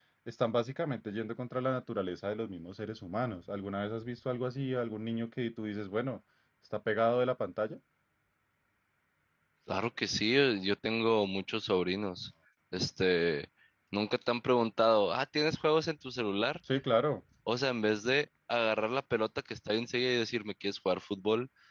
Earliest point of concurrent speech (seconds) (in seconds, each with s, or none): none